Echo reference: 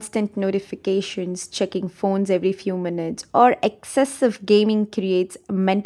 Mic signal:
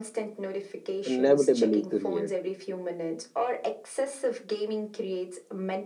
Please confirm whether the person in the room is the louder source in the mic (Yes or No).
Yes